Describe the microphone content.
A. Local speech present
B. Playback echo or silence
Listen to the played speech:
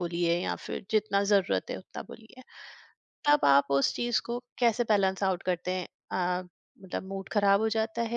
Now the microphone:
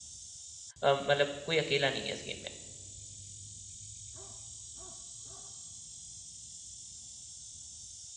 A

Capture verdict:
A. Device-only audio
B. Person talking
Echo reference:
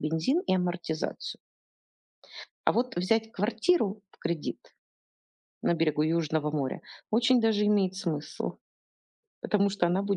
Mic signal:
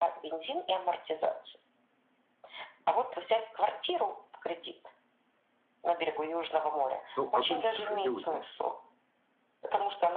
B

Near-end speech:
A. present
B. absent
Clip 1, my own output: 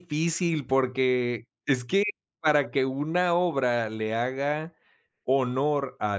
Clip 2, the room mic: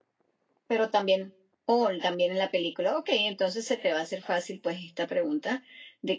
A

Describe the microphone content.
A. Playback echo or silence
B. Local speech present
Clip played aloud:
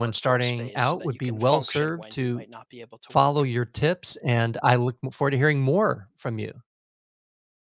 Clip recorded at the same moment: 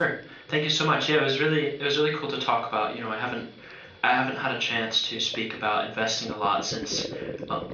B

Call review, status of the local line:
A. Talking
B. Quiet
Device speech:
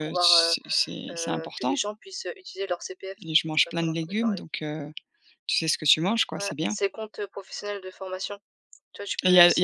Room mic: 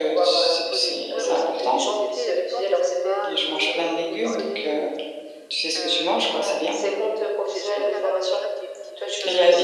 A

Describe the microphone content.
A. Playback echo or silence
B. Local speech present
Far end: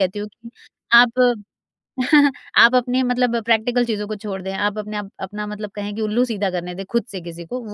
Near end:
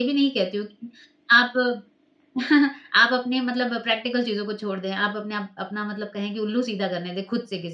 A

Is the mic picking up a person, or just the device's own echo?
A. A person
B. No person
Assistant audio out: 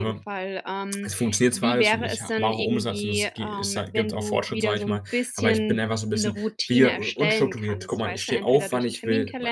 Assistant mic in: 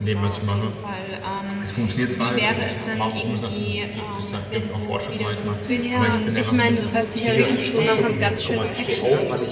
A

